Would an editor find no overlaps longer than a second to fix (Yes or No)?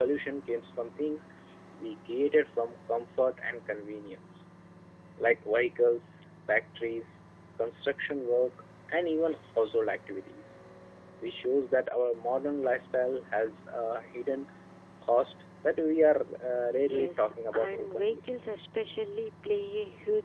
No